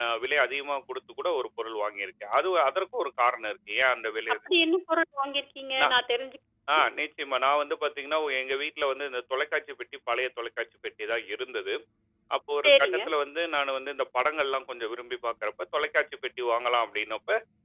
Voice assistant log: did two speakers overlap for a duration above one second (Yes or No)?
No